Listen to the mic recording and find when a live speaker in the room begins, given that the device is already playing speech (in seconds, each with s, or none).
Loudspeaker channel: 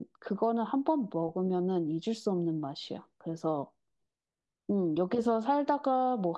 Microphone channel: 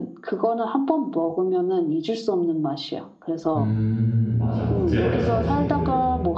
3.5 s